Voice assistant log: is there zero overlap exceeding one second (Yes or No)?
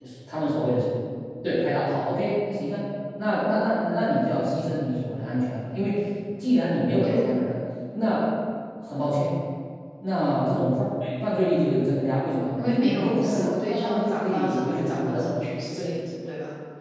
No